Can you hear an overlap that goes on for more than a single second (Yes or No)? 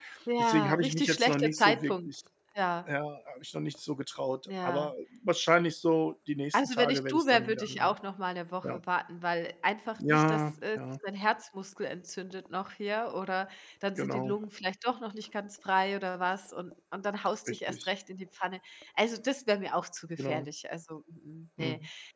Yes